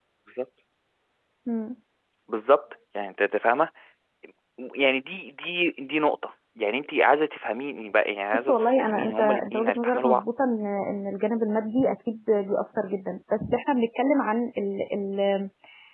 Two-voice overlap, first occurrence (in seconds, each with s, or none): 8.3 s